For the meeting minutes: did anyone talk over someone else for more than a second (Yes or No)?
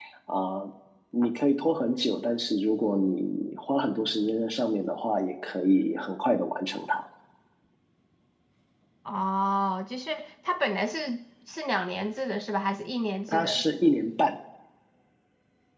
No